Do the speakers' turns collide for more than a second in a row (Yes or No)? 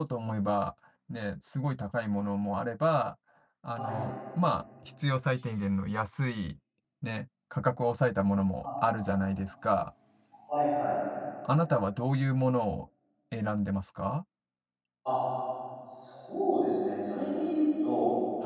No